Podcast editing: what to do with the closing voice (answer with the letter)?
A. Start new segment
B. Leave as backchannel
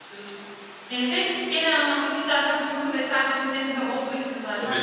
A